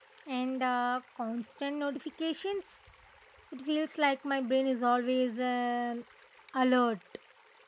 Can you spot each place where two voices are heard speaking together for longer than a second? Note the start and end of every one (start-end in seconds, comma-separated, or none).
none